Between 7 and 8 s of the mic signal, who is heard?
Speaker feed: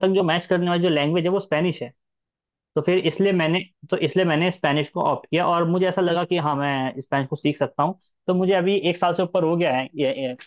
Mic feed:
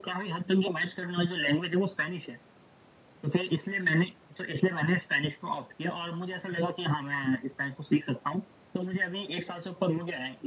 echo only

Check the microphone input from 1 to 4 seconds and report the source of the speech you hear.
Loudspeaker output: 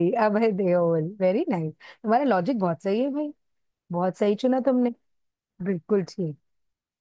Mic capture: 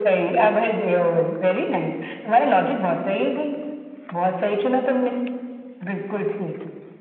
echo only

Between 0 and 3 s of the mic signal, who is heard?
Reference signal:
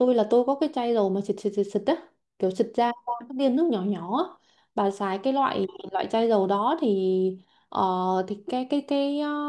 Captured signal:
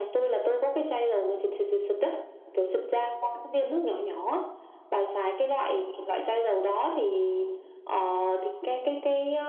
echo only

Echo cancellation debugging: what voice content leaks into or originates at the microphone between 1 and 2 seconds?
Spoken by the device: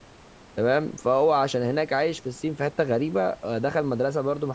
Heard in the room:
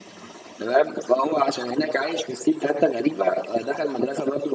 echo only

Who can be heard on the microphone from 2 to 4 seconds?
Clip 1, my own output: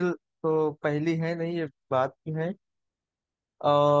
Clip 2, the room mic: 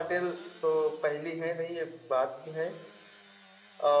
echo only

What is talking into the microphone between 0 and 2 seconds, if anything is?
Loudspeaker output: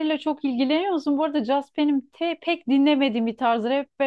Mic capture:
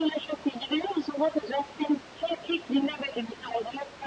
echo only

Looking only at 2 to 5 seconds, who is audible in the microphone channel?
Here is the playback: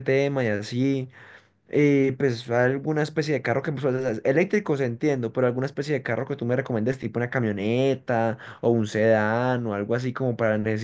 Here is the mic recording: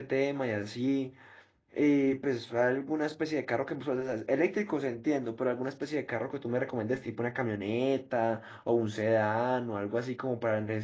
echo only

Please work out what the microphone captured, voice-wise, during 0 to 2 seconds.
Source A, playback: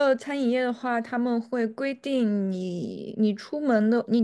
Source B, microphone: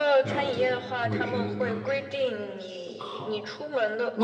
both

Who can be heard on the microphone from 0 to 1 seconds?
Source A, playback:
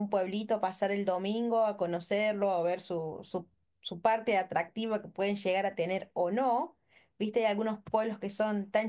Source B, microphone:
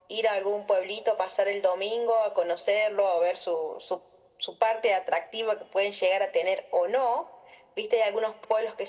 echo only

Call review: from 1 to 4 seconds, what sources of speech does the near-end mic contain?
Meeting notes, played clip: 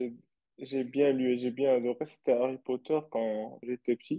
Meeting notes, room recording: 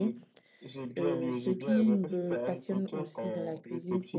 both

